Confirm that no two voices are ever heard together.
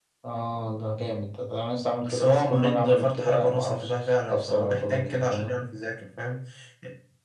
No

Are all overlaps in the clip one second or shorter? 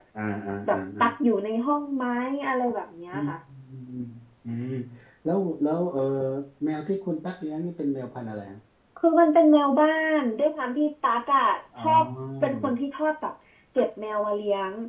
Yes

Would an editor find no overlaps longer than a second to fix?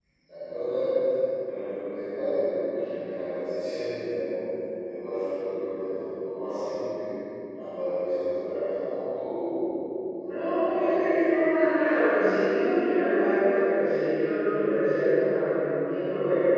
No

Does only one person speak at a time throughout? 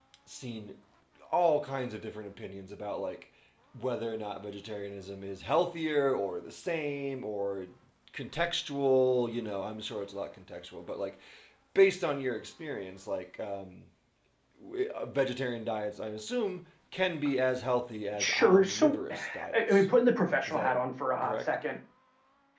No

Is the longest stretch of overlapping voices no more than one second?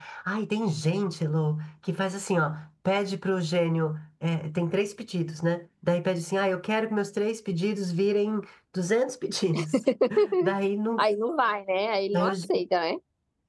Yes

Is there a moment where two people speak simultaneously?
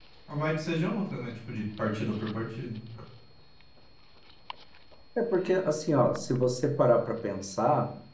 No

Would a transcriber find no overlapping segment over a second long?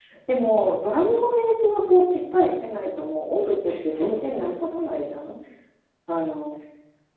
No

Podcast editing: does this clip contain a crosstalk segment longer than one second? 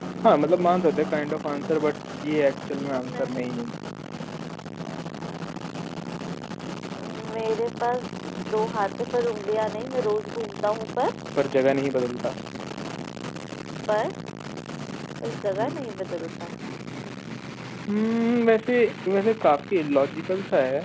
No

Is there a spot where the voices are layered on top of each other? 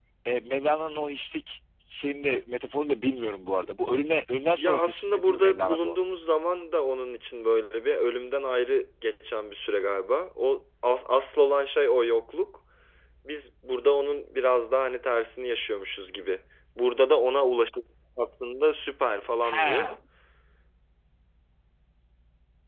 Yes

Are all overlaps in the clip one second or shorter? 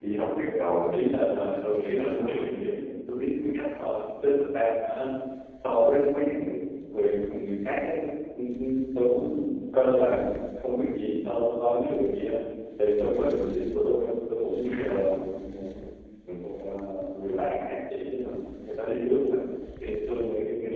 Yes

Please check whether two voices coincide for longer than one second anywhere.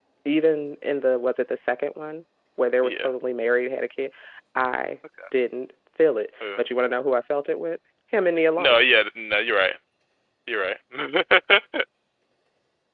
No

